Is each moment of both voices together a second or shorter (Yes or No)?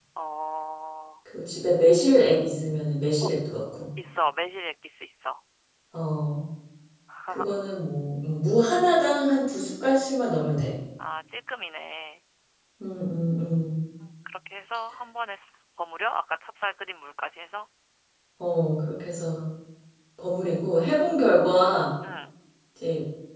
Yes